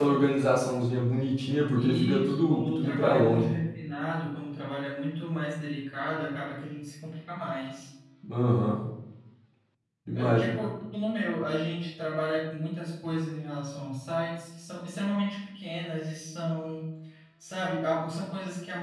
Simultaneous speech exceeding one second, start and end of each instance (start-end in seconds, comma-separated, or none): 1.8-3.5